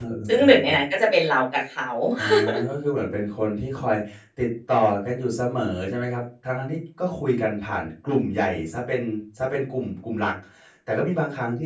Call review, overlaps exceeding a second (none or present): none